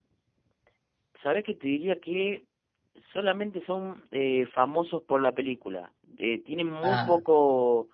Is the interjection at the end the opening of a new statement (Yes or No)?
No